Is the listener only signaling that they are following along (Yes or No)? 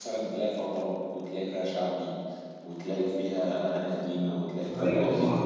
No